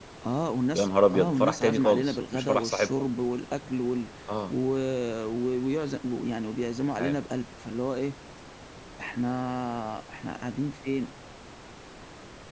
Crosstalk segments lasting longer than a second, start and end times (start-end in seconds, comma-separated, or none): 0.7-2.9